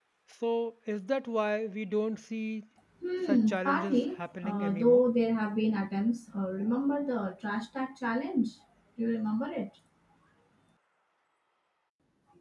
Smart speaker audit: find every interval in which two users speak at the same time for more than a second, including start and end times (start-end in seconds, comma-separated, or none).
3.3-5.1